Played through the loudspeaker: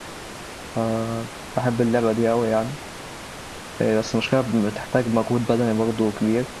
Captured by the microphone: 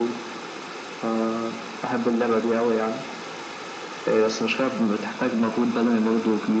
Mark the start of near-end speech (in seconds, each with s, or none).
none